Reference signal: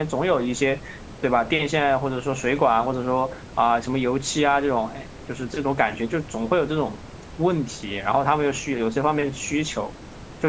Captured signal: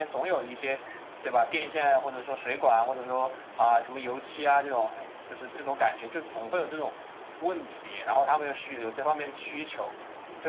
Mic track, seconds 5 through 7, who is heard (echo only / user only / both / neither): echo only